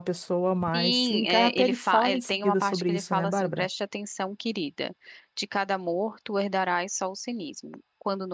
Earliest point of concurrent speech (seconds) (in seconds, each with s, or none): 0.7 s